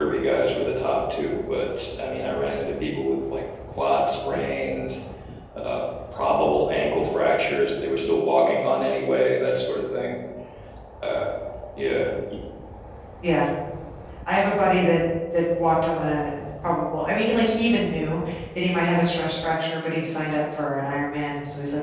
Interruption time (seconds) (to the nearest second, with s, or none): none